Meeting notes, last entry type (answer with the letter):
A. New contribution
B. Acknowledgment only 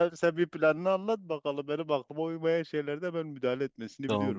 A